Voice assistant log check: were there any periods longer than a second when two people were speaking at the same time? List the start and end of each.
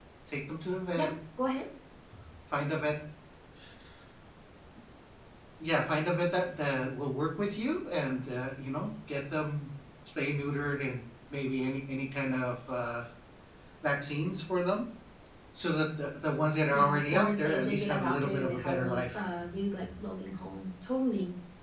16.7-19.2

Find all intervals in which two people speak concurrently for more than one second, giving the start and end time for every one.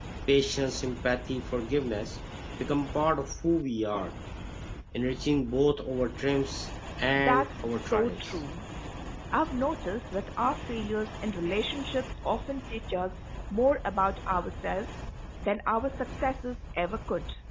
7.1-8.4

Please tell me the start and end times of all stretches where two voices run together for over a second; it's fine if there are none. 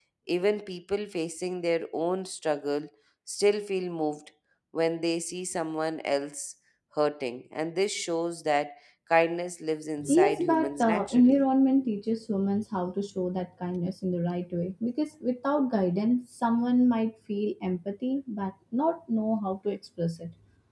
10.0-11.5

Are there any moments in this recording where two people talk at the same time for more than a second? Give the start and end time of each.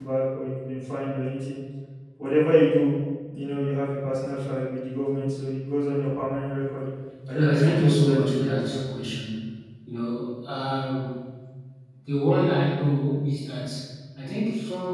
7.3-8.8

